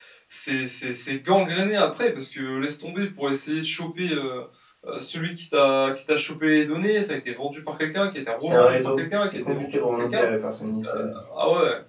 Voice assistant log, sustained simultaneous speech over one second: present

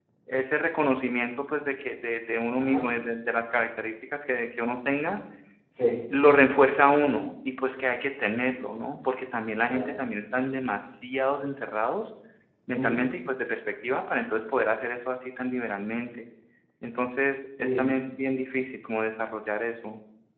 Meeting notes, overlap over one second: none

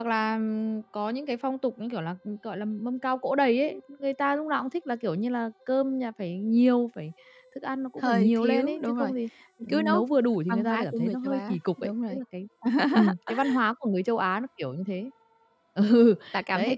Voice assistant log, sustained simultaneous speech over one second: present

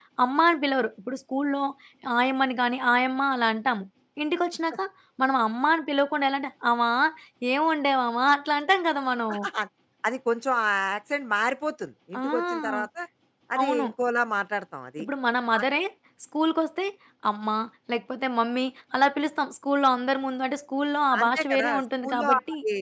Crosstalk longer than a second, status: present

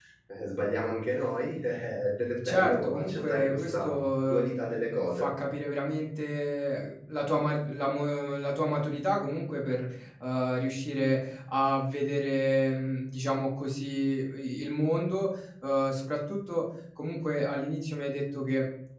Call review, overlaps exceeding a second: present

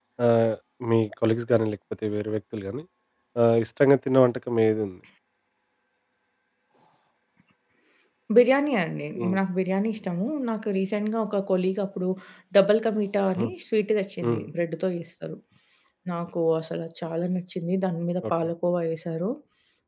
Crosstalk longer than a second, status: none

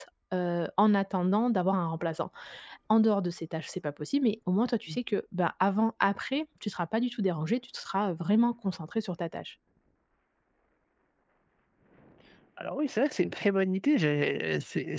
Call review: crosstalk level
none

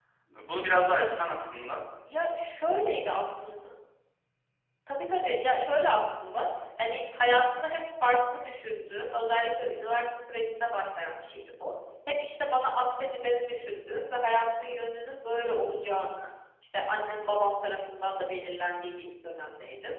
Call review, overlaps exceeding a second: none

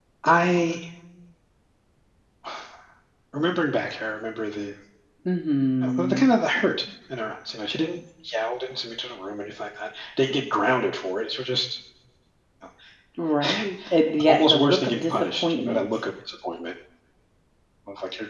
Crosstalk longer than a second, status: present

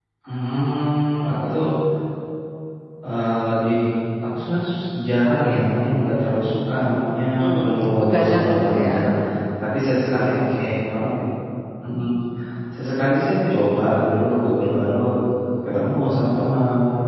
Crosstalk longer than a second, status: present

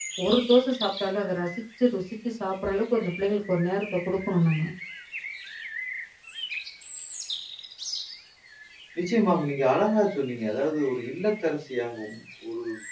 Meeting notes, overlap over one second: none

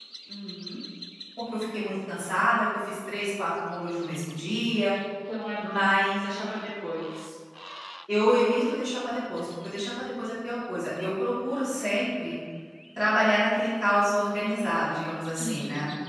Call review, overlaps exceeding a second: none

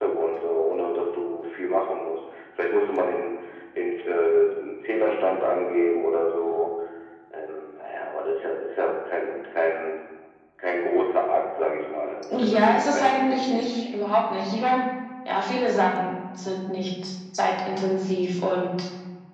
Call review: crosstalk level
present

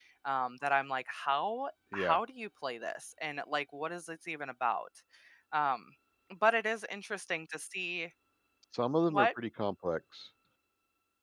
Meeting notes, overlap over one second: none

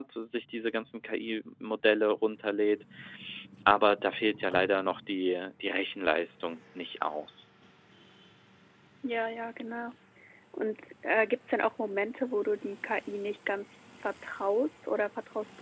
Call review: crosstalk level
none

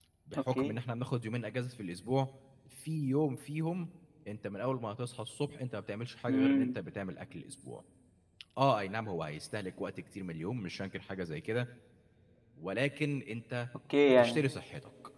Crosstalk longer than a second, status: none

